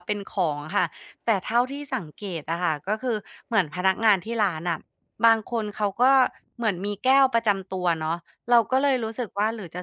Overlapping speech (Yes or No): No